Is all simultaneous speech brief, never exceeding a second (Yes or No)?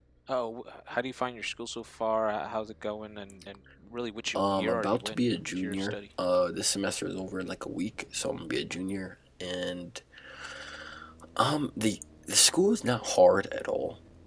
No